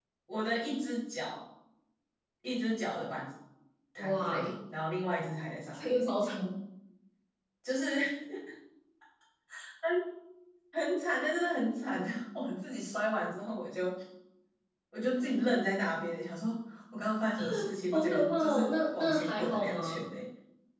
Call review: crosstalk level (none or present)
present